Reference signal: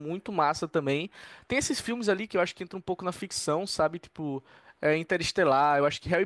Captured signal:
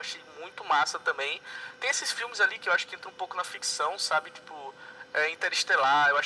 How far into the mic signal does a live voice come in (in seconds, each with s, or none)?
none